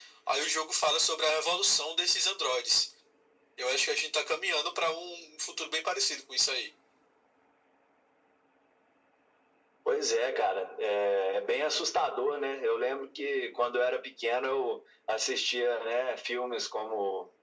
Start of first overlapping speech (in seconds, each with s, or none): none